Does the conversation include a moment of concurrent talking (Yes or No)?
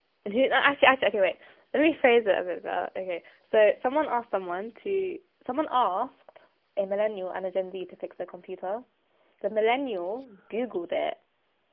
No